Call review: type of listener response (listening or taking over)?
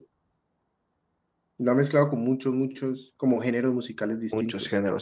taking over